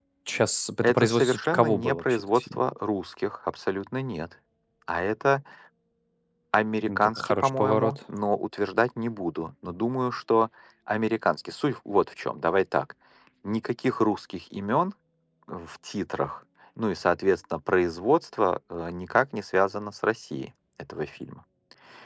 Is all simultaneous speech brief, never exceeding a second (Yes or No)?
No